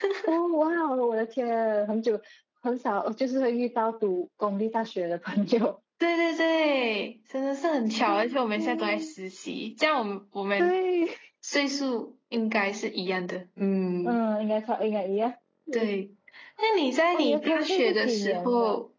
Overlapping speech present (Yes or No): Yes